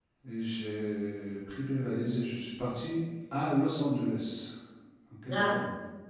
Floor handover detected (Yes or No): Yes